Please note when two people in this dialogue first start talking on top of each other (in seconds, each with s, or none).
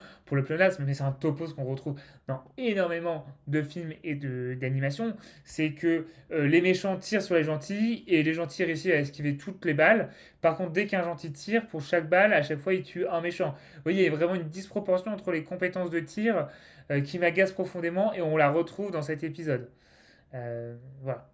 none